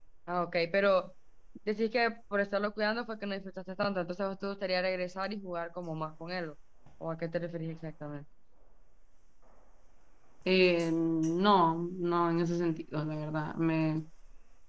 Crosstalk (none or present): none